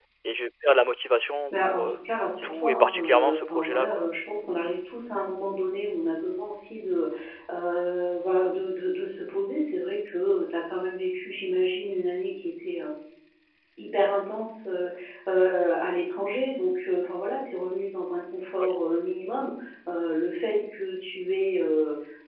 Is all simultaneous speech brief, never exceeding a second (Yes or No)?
No